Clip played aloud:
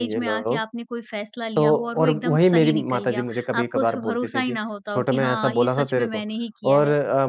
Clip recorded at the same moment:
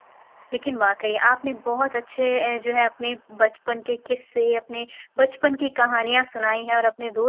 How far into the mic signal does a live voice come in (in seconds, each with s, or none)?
0.5 s